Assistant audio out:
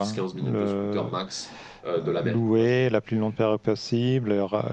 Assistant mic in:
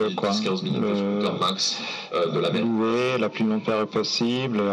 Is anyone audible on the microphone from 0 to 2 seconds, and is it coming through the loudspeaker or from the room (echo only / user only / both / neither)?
echo only